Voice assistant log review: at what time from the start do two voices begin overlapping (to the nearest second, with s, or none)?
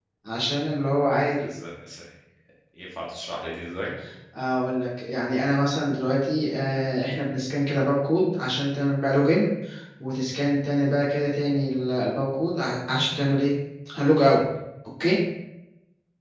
none